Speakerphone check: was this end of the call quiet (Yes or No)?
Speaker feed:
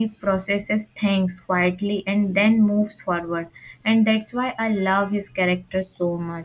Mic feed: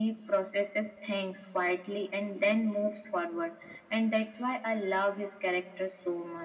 Yes